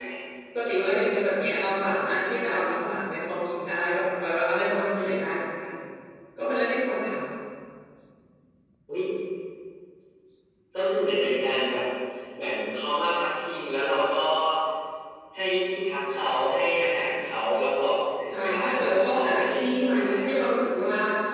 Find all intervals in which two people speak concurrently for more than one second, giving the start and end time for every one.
18.3-20.0

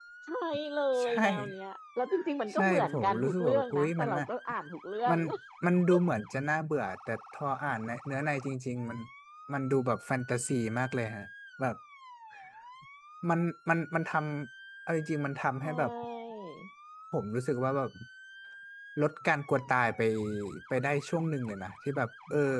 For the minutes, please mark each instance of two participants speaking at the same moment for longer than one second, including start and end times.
2.5-4.3

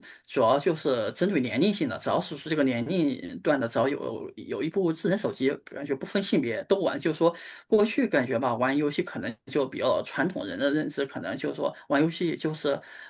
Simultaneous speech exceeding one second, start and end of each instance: none

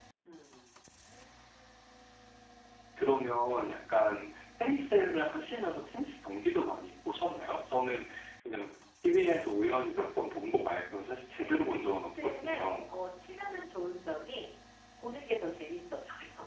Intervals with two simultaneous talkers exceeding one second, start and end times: 11.4-12.7

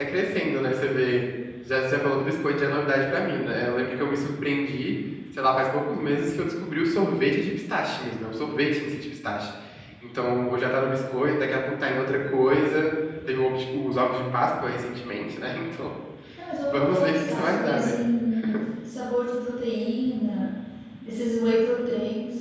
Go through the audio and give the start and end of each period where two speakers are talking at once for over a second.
16.7-18.0

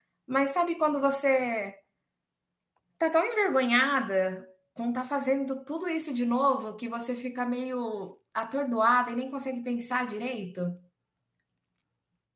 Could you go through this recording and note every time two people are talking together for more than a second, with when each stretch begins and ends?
none

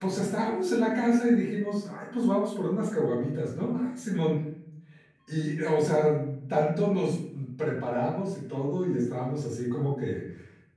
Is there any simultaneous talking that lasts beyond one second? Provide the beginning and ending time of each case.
none

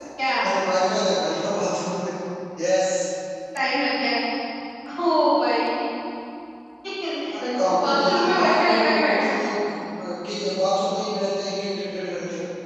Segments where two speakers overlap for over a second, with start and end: 7.6-9.4

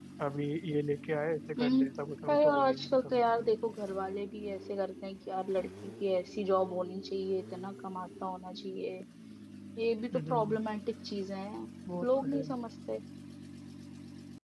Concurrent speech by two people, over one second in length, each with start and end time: 2.3-3.6

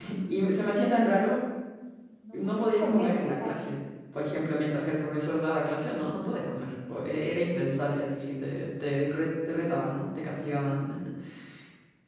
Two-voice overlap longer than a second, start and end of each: 2.3-3.8

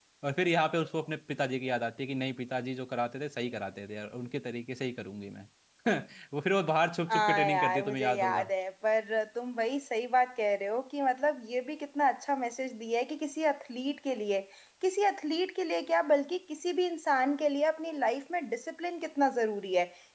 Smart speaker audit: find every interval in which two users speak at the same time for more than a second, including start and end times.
7.1-8.4

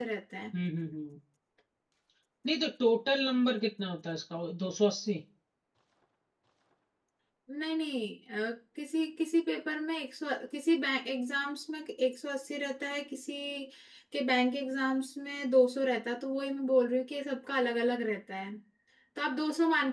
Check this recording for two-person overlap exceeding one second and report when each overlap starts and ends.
none

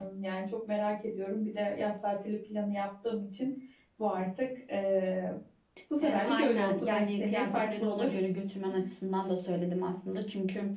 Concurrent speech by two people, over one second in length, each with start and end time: 6.0-8.1

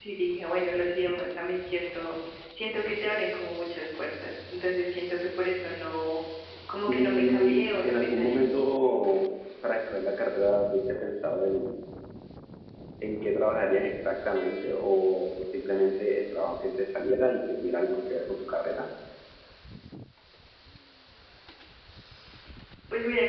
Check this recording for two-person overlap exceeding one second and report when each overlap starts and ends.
6.9-8.4

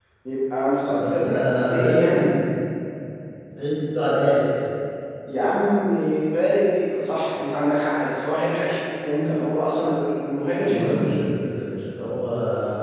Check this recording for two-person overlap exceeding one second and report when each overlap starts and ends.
1.0-2.2

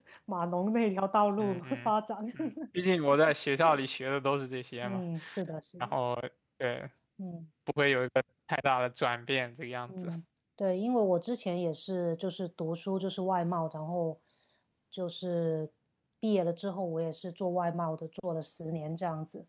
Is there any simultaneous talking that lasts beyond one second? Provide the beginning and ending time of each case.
none

